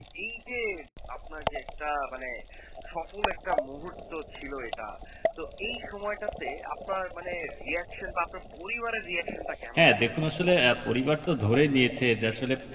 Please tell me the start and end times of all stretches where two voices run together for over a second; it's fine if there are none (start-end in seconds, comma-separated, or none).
none